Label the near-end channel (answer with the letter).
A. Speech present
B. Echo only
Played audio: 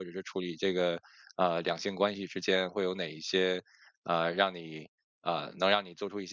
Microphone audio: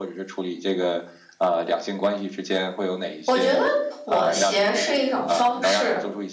A